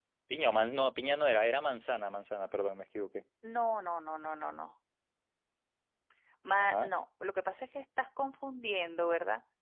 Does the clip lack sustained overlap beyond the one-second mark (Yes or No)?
Yes